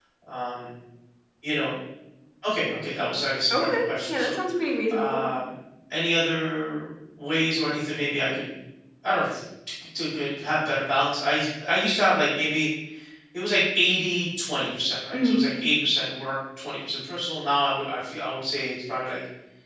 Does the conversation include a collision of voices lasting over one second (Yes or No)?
No